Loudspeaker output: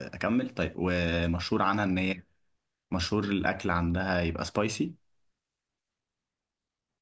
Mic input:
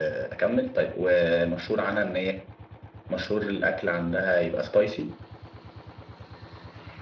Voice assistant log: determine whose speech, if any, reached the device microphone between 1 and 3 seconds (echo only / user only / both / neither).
echo only